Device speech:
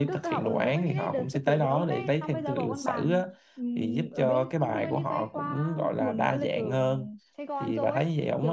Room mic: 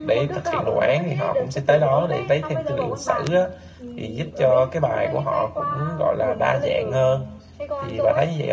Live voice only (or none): none